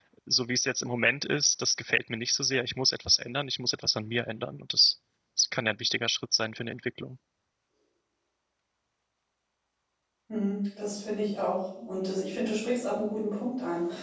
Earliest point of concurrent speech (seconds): none

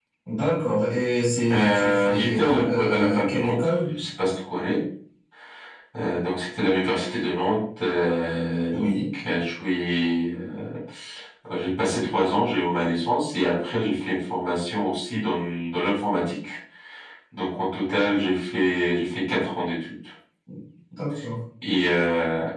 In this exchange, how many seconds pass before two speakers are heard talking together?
1.5 s

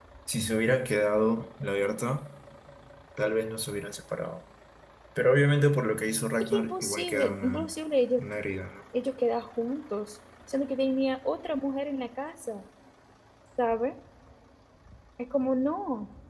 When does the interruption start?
6.4 s

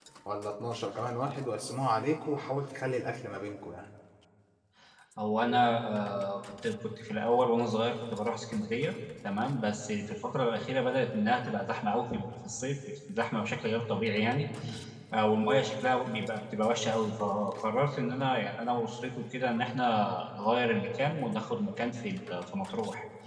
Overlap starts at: none

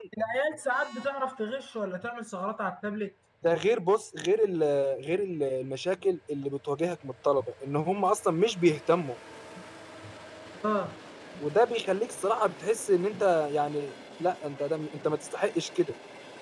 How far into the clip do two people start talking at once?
none

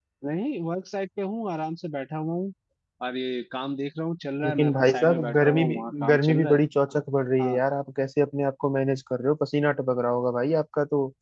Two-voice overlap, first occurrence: 4.4 s

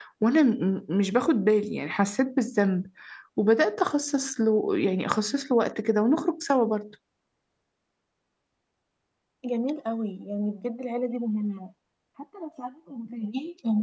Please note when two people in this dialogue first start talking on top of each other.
none

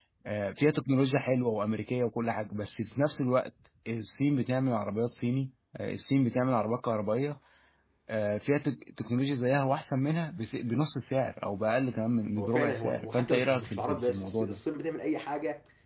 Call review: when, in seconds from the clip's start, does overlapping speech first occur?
12.4 s

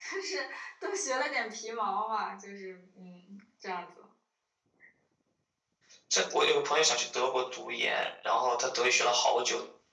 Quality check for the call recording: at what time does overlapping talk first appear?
none

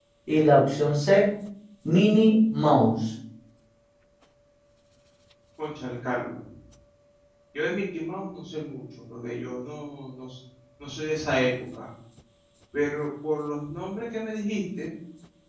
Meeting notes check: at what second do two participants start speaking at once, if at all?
none

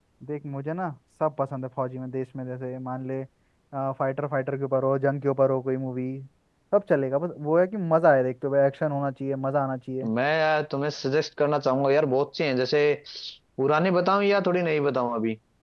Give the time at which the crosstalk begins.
none

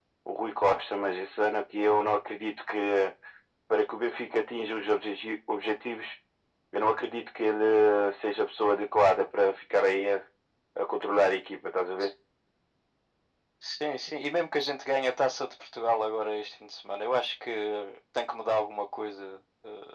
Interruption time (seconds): none

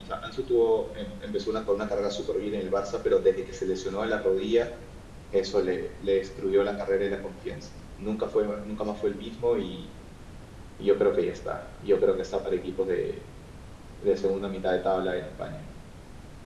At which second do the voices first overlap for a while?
none

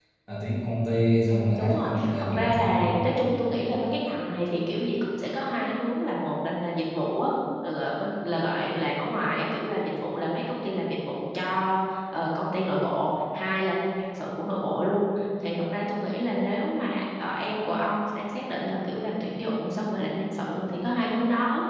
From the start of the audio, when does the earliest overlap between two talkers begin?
1.3 s

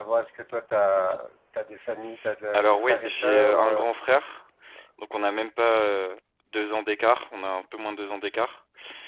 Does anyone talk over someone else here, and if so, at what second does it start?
2.5 s

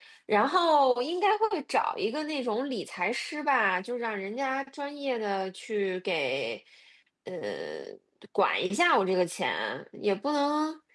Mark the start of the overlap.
none

